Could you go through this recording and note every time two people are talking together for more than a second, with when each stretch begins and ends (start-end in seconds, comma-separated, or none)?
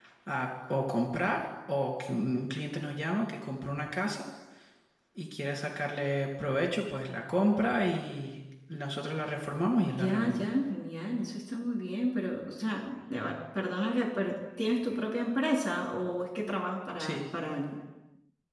none